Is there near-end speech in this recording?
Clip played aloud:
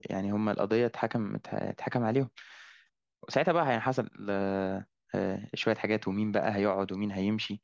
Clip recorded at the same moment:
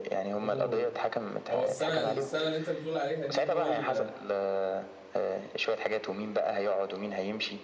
Yes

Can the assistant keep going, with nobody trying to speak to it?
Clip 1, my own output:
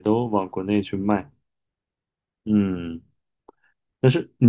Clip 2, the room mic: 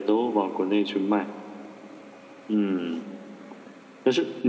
Yes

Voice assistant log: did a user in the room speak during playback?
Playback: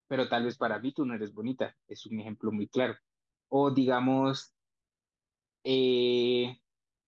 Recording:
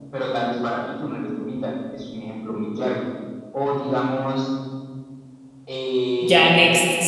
Yes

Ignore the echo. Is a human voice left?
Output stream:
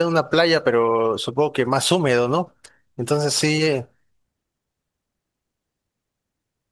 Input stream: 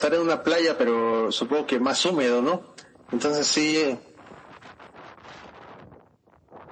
No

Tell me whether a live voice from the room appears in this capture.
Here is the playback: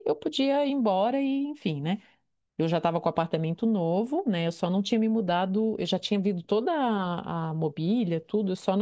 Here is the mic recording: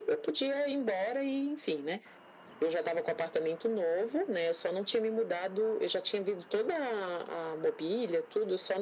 No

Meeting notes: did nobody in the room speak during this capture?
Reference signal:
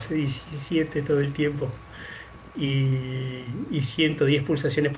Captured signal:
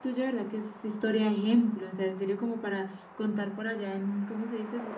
No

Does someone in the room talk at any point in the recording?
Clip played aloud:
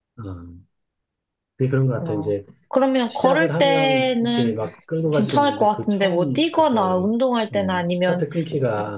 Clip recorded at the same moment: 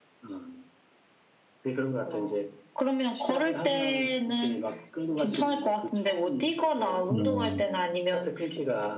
Yes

